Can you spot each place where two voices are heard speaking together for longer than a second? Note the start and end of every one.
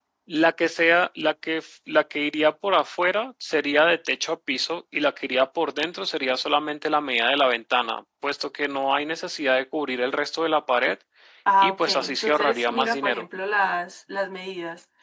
11.6-13.3

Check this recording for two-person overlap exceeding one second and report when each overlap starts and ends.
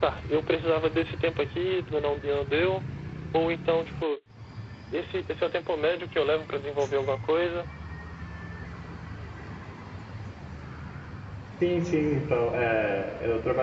none

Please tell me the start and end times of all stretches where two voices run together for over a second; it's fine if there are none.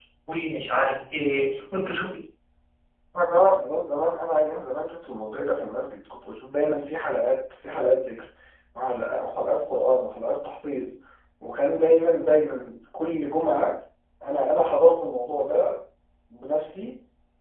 none

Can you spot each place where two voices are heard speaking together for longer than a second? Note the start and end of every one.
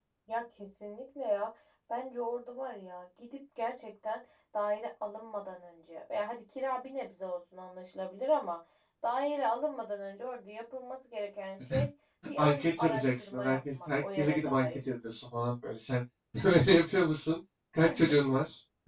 12.4-14.8

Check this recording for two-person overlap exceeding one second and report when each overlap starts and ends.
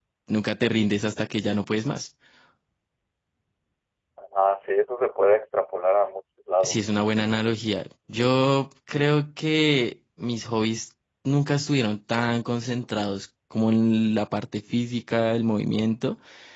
none

